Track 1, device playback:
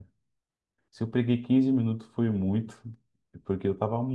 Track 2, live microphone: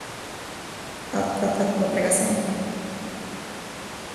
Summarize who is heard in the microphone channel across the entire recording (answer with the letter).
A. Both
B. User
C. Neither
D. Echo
B